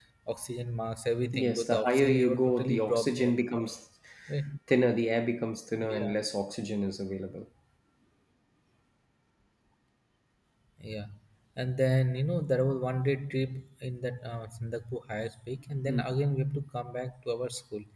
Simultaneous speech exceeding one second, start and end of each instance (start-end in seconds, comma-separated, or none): 1.3-3.3